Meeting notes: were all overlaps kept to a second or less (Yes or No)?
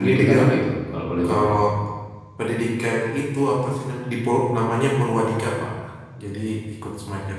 Yes